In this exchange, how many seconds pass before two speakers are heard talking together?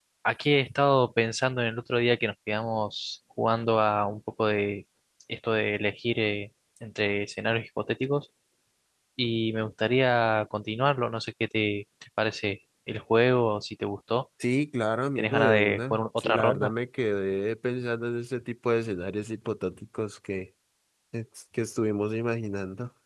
15.2 s

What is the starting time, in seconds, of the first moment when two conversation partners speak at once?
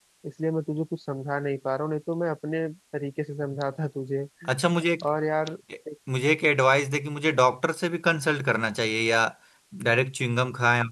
none

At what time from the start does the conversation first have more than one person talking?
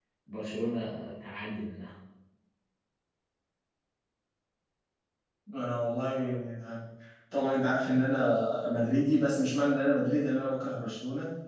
none

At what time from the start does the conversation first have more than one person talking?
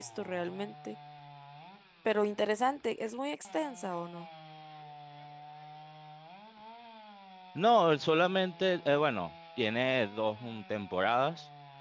none

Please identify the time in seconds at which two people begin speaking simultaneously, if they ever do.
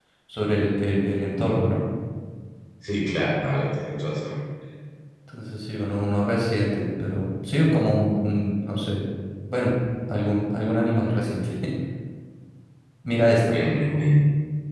none

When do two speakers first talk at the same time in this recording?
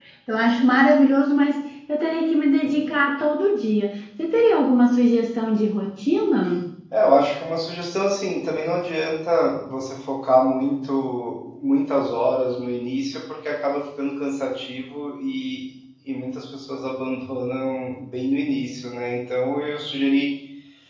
none

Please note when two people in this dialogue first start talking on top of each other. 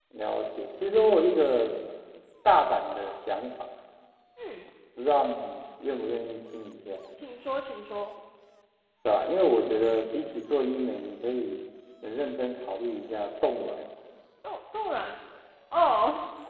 none

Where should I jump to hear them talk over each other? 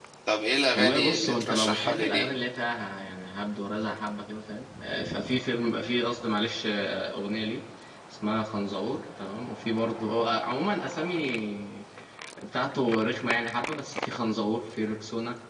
0.7 s

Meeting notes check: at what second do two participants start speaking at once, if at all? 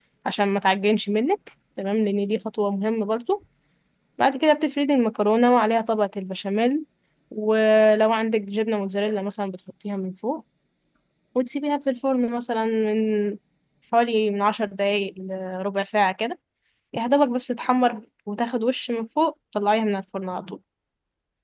none

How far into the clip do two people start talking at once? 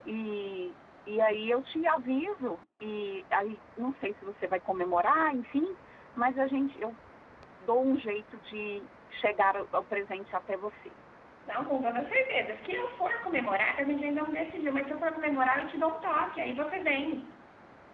none

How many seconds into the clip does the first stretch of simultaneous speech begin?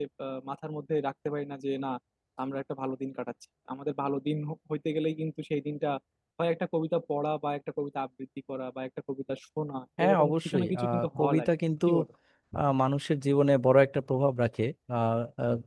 10.0 s

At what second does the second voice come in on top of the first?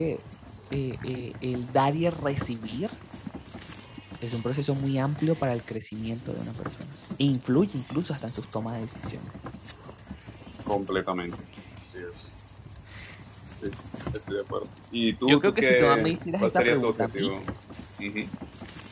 15.2 s

